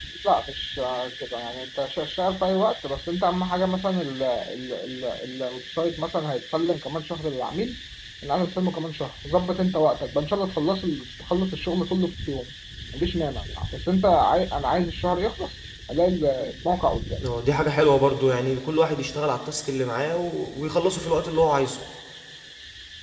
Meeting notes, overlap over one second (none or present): none